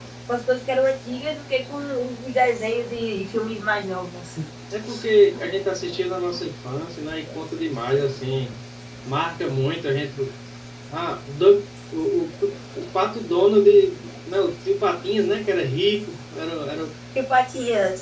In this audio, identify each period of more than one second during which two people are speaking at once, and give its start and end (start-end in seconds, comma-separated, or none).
none